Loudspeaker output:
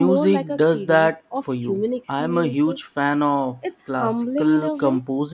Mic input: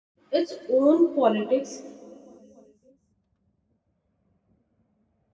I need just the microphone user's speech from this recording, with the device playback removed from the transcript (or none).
its own politics,